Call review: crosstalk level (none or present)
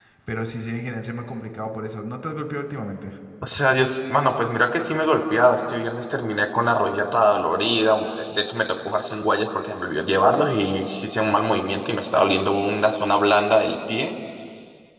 none